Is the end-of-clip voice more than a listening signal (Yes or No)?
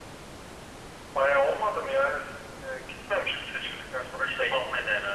Yes